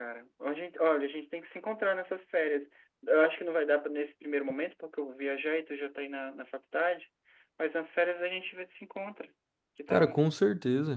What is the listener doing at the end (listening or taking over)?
taking over